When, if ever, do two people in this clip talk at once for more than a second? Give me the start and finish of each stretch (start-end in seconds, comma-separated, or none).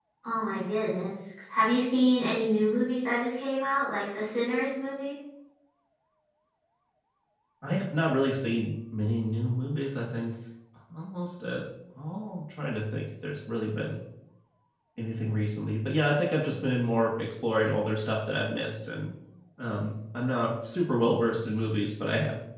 none